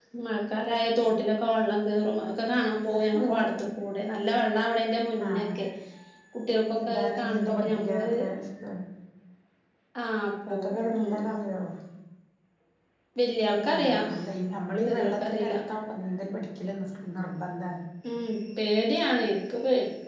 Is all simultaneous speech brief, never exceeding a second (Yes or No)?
No